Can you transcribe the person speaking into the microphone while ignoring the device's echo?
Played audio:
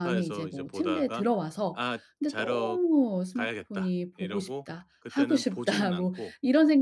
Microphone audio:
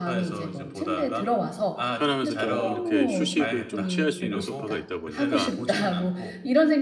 편하면서 좀 이렇게 휴식을 좀 취할 수 있는 소파가 있다 보니까

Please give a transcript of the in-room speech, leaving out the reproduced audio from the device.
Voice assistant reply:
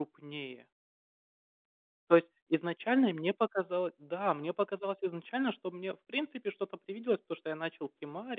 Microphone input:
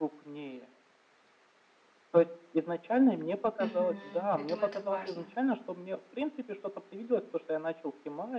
Мгм. Я думаю, это важно.

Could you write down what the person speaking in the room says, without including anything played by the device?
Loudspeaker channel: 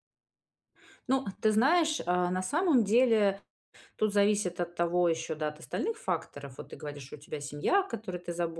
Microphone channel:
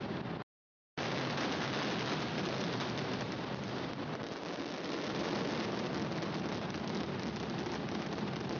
none

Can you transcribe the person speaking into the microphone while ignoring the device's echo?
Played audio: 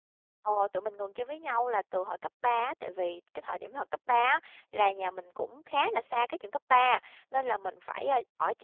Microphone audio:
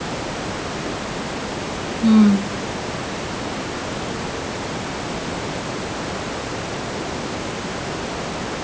Ừm.

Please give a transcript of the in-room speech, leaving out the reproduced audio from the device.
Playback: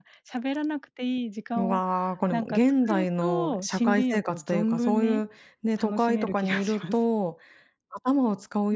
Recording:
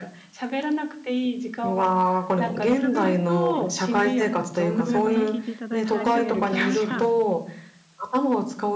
こちらこそはい、はい。こちらこそ聞いていただいてありがとうございました。

